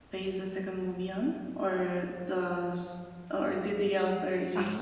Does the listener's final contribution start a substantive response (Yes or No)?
Yes